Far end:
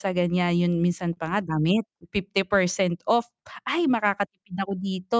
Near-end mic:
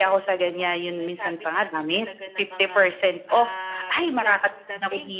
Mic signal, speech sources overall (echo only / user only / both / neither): both